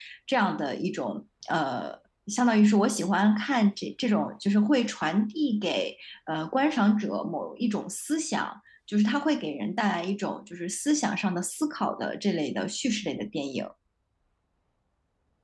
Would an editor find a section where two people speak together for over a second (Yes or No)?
No